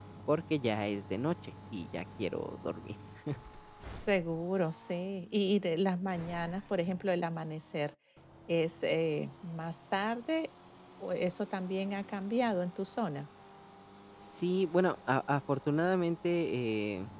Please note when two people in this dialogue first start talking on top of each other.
none

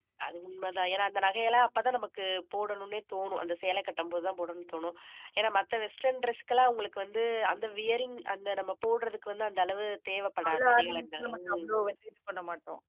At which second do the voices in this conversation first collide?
10.4 s

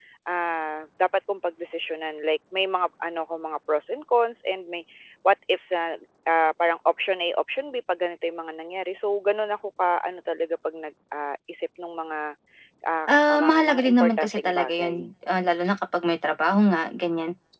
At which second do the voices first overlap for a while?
13.1 s

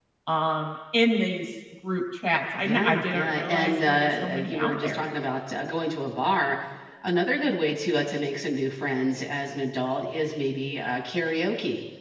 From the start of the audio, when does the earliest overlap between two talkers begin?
2.6 s

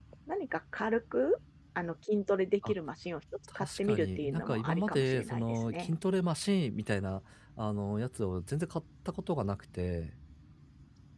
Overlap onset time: 3.6 s

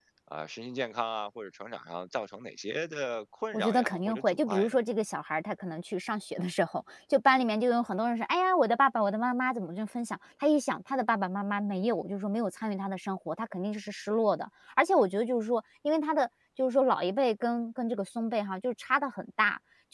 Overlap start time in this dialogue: 3.5 s

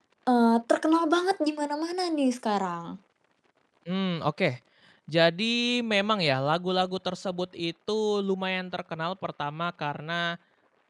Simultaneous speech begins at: none

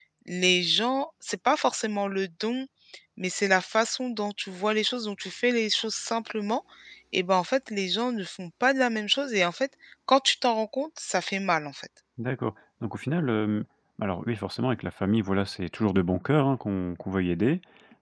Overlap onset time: none

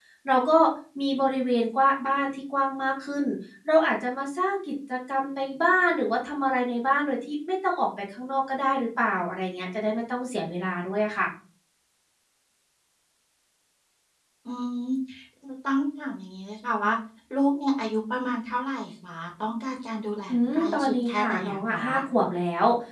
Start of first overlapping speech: 20.3 s

